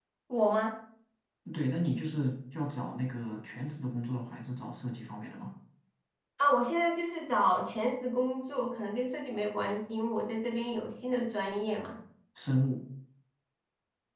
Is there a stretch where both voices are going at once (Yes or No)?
No